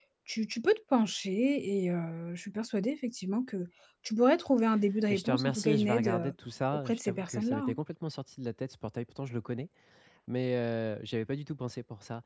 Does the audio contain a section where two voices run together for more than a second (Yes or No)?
Yes